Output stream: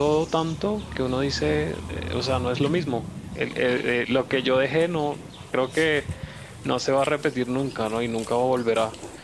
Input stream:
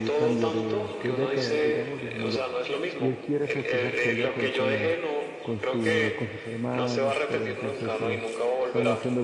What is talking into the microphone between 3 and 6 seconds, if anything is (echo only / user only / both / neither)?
both